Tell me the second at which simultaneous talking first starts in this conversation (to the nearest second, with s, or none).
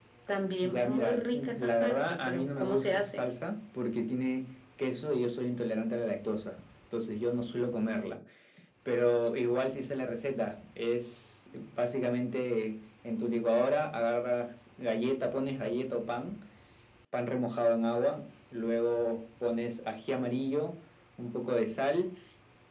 1 s